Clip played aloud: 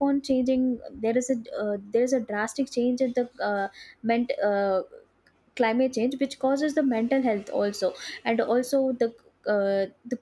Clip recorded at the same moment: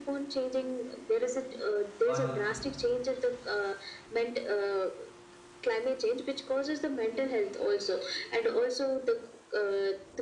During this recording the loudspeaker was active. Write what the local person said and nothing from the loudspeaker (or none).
What do you think?